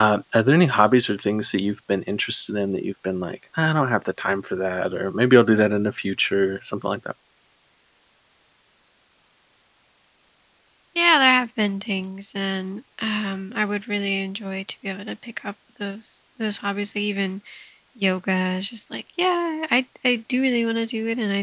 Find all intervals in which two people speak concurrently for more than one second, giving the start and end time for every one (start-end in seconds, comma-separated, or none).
none